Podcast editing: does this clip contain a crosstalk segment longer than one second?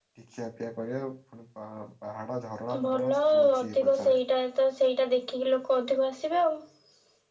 Yes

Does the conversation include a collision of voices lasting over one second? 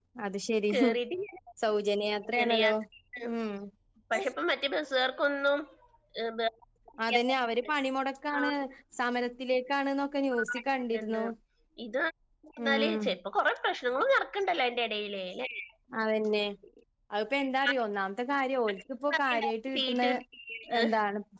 No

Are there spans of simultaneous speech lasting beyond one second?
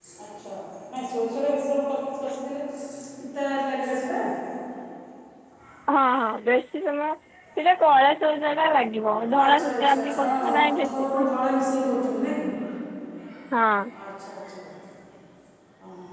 Yes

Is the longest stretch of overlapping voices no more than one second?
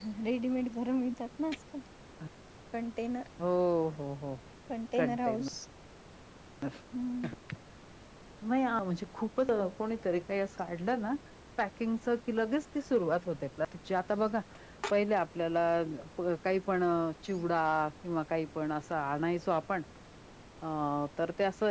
Yes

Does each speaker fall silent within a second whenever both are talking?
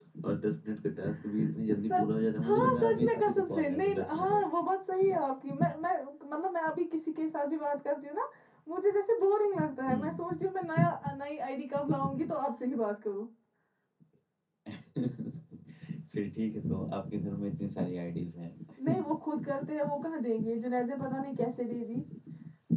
No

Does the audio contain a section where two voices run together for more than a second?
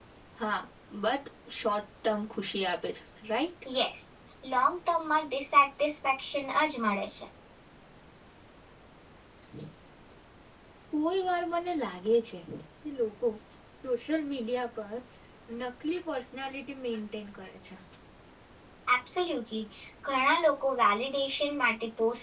No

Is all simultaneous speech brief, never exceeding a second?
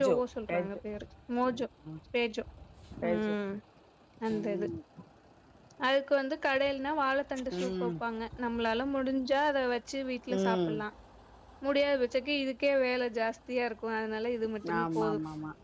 Yes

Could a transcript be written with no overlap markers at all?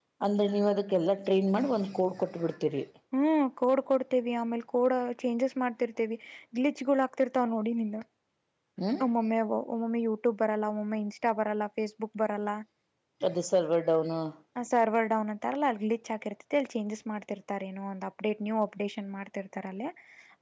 Yes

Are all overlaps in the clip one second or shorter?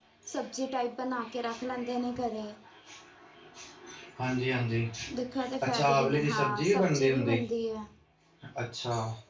No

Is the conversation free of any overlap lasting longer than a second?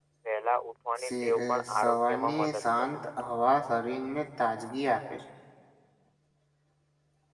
No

